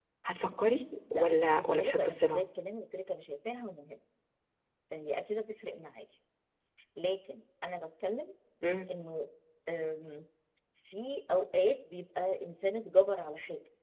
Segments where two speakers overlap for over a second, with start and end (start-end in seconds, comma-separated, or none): 1.1-2.4